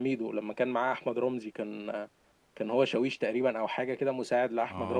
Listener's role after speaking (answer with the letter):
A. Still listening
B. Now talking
B